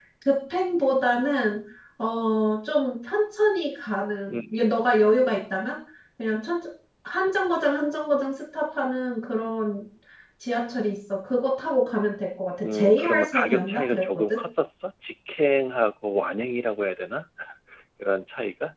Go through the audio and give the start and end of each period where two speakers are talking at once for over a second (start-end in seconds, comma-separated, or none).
12.6-14.4